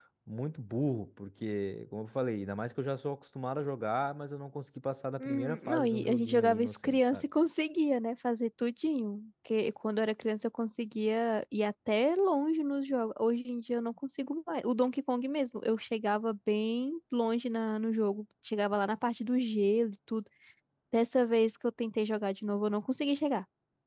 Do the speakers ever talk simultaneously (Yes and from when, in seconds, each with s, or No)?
Yes, from 5.2 s